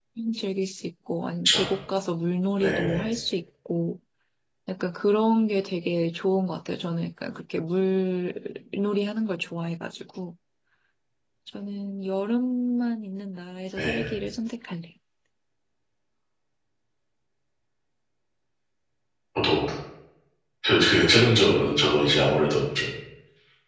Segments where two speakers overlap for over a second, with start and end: none

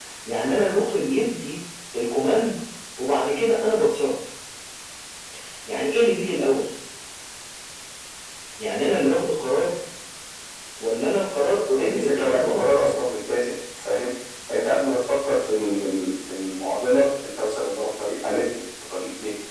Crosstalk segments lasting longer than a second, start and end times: 11.8-13.0

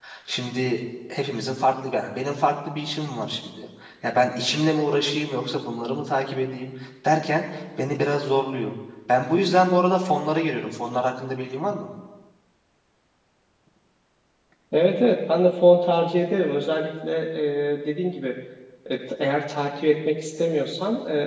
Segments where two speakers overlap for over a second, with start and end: none

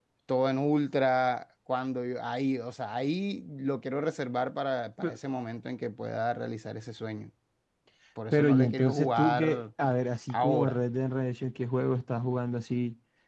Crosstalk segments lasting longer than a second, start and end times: 8.3-9.6

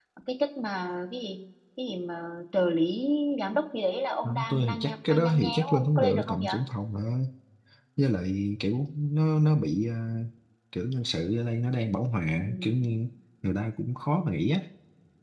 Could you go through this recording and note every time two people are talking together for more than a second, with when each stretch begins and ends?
4.5-6.5

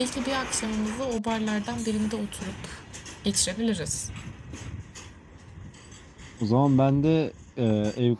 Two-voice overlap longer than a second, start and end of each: none

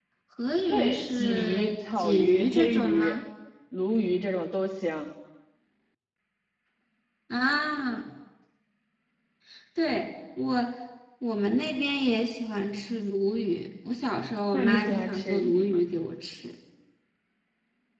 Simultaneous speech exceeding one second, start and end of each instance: 0.7-3.1, 14.5-15.8

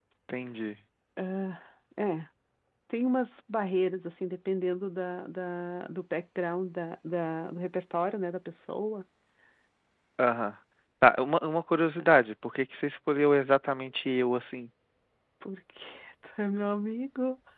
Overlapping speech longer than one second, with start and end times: none

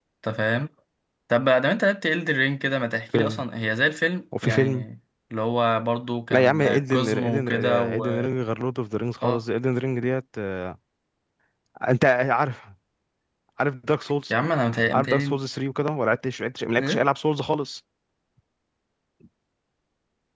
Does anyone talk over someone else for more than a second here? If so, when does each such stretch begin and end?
6.3-8.1

